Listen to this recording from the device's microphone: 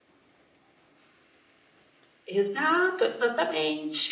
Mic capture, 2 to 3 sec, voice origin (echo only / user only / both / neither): user only